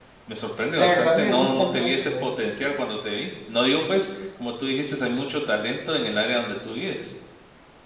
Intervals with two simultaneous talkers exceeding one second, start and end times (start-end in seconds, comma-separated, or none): 0.8-2.2